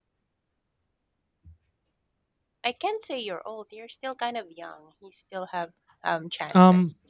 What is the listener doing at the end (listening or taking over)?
taking over